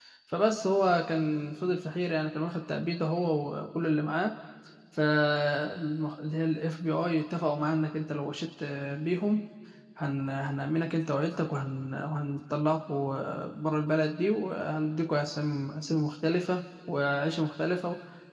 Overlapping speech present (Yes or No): No